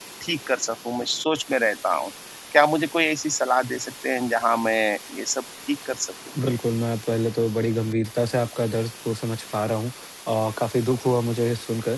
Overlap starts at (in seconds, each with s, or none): none